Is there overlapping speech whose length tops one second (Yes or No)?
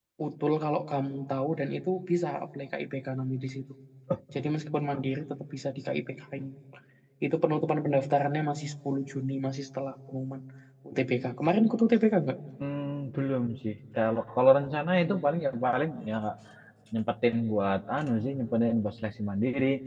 No